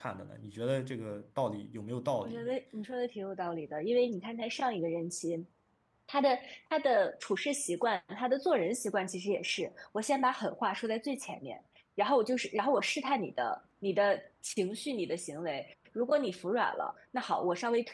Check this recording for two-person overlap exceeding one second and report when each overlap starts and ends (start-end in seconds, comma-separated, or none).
none